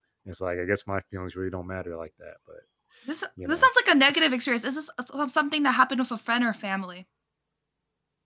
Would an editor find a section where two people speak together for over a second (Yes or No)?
No